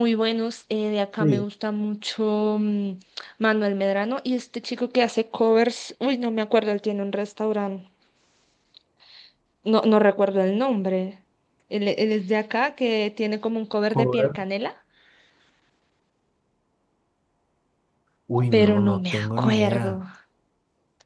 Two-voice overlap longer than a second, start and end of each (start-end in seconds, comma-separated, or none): 18.5-20.0